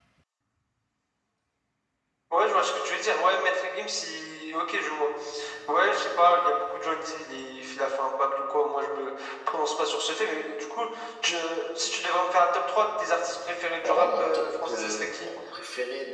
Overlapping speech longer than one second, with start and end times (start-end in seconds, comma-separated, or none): 13.8-15.3